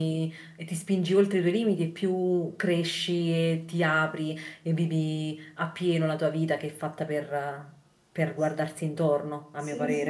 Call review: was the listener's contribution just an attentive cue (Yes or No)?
No